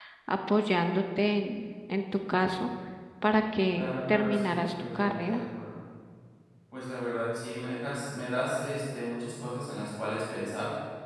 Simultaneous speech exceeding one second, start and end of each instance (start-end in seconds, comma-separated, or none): 3.8-5.4